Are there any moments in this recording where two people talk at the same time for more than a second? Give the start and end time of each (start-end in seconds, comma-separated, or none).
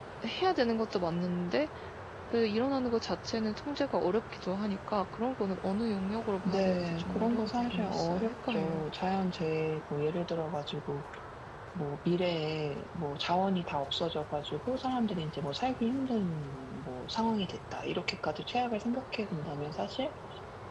6.4-8.8